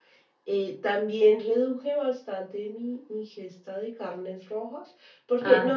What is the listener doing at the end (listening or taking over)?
listening